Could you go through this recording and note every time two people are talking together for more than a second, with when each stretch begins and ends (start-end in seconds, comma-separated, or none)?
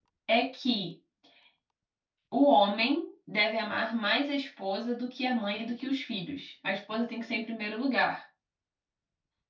none